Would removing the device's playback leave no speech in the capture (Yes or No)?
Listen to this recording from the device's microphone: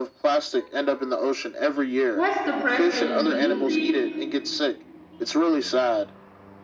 No